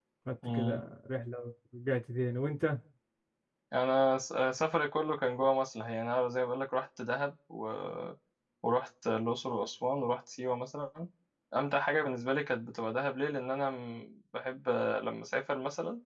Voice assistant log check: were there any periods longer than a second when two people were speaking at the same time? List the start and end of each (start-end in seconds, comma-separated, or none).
none